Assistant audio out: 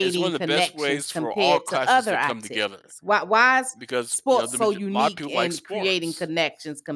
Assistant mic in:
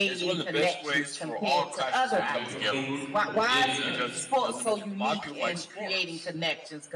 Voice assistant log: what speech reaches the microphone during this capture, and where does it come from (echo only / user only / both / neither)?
both